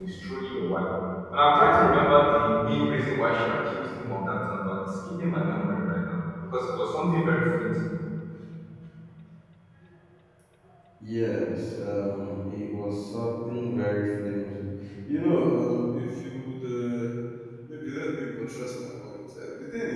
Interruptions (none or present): none